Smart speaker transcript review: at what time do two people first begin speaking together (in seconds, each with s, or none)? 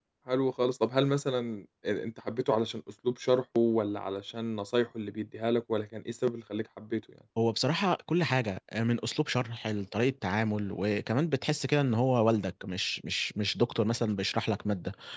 none